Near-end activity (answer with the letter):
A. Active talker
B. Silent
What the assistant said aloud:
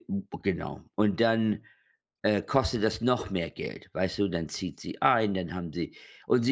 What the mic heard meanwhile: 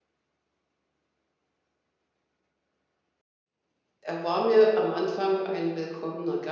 A